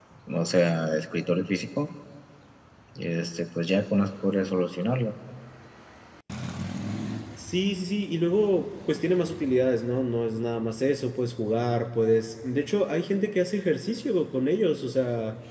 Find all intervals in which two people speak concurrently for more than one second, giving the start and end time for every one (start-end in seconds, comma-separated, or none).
none